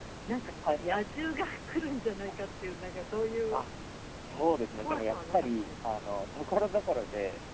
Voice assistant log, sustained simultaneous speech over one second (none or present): present